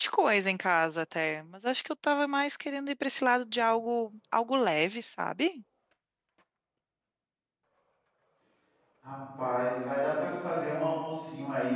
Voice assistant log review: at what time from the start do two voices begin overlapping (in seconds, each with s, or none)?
none